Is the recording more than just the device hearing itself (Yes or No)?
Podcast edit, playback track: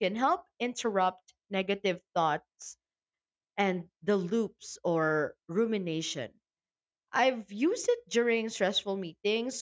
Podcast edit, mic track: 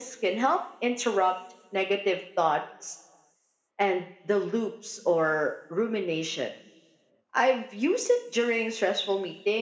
No